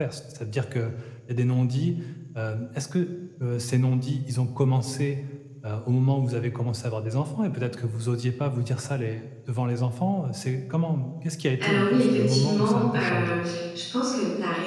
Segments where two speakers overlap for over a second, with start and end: 11.6-13.4

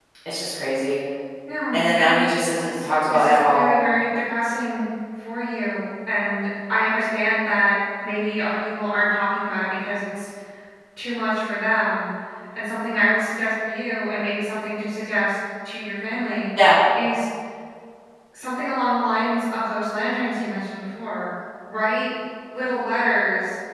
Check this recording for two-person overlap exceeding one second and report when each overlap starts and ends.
1.7-3.7

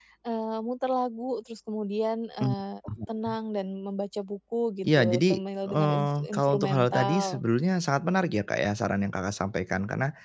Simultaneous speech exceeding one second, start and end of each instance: 4.8-7.4

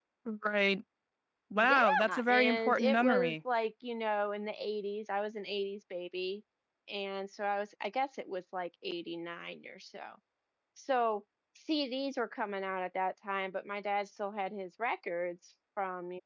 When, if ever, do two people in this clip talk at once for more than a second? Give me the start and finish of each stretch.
1.6-3.4

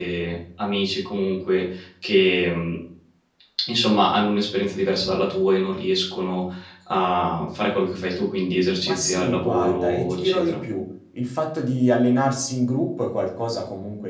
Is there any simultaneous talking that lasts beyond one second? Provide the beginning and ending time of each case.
8.8-10.6

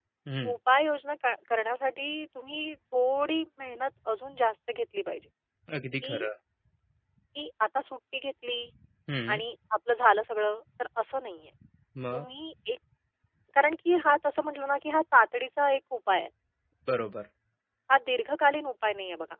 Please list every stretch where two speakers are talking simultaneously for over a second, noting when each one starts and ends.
none

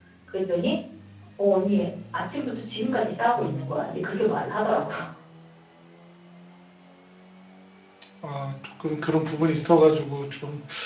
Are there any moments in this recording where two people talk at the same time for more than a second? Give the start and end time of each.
none

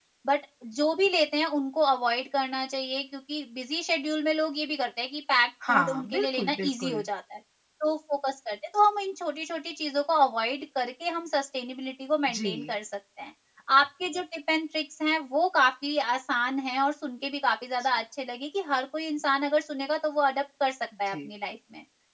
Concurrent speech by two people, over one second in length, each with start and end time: 5.7-7.0

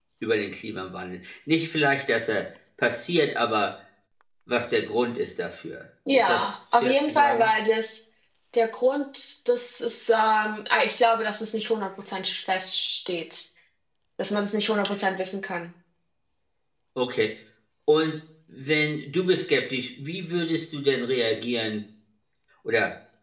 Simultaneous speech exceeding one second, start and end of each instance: 6.1-7.5

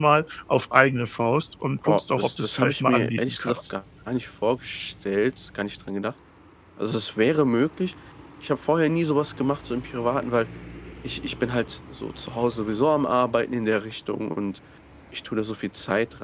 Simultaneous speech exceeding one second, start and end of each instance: 1.9-3.5

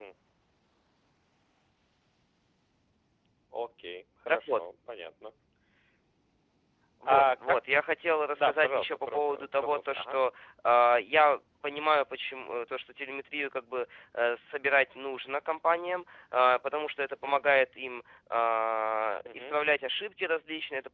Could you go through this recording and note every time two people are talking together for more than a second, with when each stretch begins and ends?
8.4-10.2

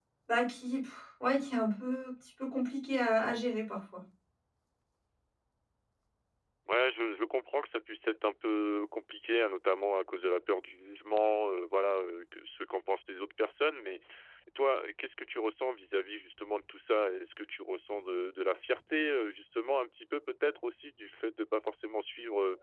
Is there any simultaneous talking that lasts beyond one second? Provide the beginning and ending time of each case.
none

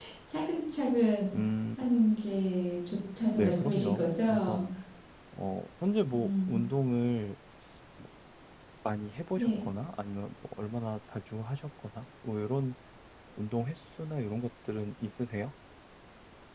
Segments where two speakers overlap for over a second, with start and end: 3.3-4.6

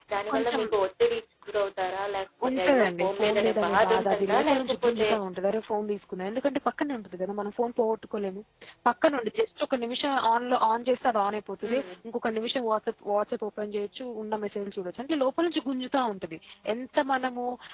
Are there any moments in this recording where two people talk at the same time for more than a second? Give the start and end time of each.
2.5-5.1

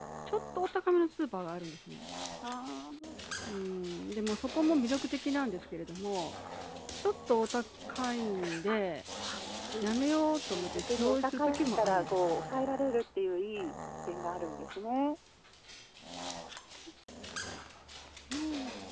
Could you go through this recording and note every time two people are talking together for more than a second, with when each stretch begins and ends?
10.5-12.7

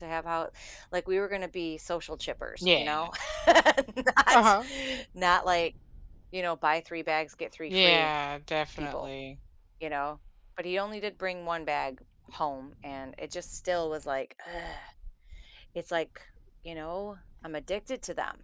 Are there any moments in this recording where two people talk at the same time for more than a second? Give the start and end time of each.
none

